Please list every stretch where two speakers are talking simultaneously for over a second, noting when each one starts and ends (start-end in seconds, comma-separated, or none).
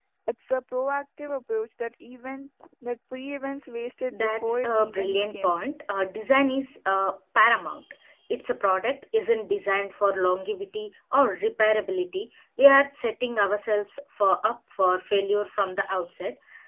4.1-5.5